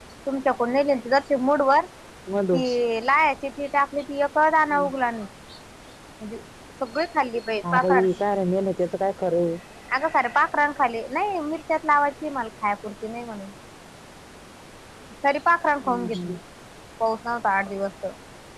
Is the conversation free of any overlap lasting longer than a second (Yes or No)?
Yes